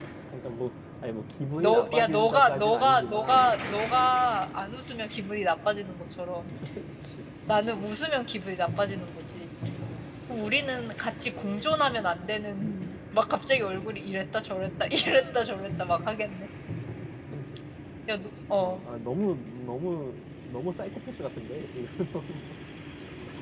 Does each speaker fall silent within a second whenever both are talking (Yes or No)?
No